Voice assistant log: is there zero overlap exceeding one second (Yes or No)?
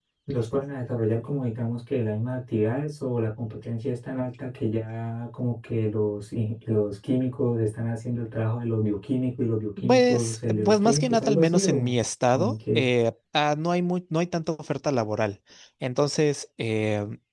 No